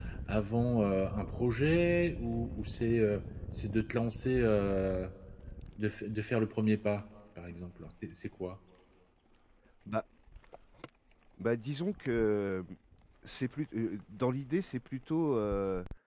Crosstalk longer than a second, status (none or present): none